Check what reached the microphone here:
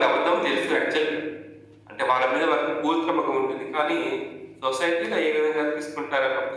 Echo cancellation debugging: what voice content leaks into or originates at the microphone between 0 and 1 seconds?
echo only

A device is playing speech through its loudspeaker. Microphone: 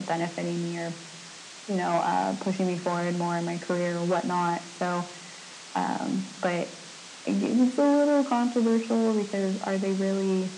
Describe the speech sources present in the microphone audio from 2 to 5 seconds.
echo only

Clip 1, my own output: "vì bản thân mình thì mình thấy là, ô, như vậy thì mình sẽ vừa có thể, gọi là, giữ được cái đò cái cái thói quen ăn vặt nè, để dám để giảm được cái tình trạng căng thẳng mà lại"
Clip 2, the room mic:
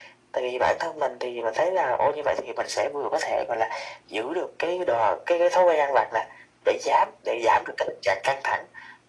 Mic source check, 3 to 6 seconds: echo only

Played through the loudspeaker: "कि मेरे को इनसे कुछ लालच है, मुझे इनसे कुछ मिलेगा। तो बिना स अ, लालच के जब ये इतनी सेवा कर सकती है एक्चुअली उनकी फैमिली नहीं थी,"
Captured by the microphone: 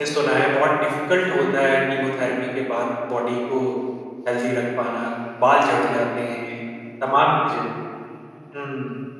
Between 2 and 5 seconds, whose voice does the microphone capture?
user only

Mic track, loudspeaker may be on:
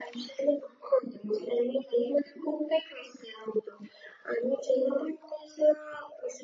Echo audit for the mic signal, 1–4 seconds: echo only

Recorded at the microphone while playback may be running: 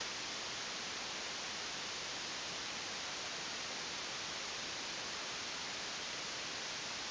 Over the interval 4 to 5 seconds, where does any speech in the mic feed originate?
neither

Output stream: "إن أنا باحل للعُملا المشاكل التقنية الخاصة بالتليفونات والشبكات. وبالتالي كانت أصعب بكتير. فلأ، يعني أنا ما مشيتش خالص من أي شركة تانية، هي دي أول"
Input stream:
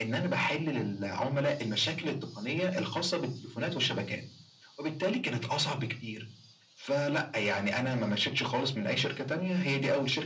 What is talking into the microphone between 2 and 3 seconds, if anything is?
echo only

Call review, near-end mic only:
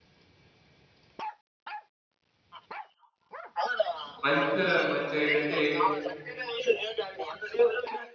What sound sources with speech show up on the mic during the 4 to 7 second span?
both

